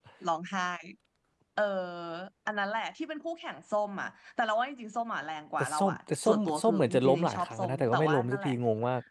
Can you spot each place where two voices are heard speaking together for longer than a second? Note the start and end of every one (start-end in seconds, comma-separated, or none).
5.6-8.5